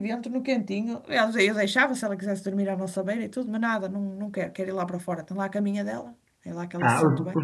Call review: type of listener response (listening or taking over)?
taking over